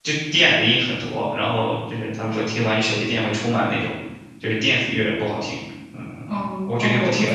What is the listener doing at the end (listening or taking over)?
taking over